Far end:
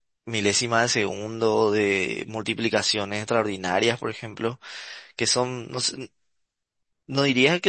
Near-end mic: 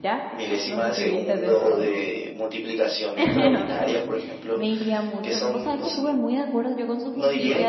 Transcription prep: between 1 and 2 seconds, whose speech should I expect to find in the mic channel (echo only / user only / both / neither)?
both